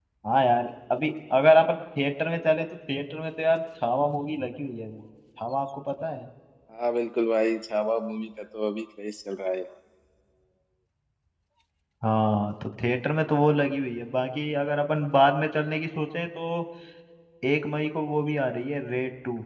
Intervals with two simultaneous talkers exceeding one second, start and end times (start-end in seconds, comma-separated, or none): none